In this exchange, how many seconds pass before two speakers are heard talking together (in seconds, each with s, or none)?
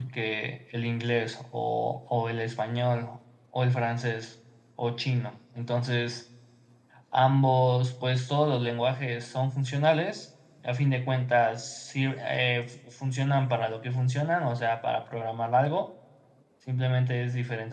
none